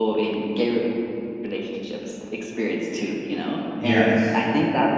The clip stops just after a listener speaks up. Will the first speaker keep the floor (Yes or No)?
Yes